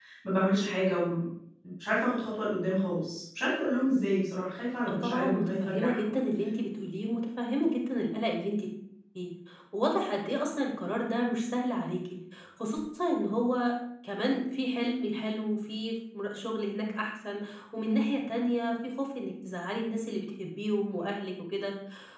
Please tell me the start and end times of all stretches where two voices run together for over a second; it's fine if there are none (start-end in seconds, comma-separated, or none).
4.8-6.1